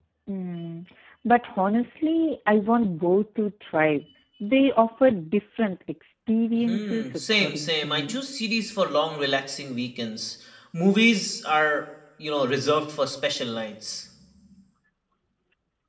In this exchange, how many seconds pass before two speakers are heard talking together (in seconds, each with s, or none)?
6.6 s